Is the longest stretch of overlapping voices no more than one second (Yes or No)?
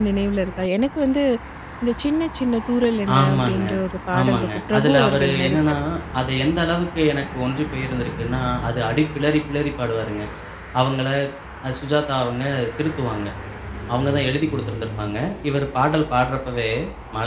No